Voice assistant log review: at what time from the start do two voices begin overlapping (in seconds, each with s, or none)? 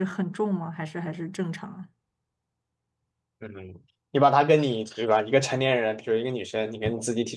none